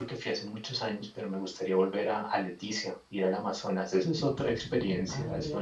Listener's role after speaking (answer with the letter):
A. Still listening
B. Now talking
B